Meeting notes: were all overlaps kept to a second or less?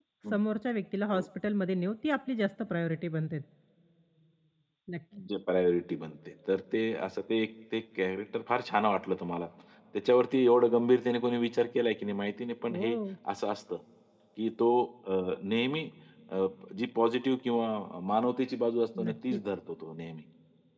Yes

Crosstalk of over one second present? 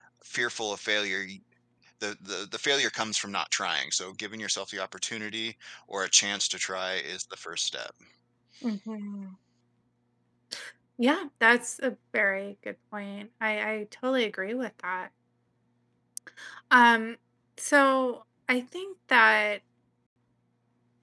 No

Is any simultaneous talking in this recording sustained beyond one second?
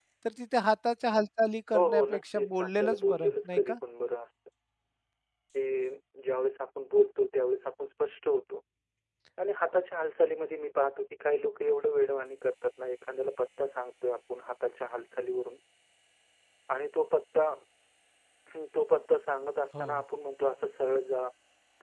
Yes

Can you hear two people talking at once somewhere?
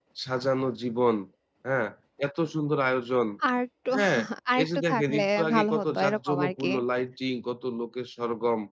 Yes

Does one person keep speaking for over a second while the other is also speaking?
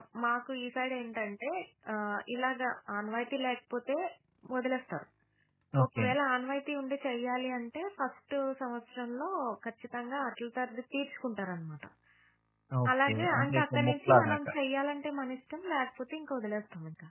Yes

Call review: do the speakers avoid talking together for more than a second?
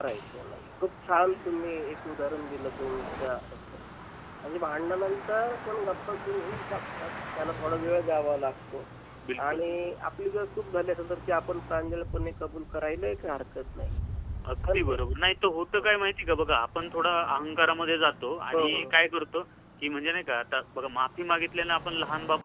Yes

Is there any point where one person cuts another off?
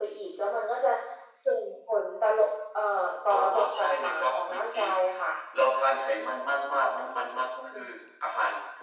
Yes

